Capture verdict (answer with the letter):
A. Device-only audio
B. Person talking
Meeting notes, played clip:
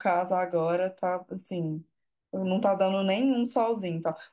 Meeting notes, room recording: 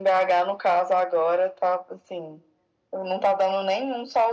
A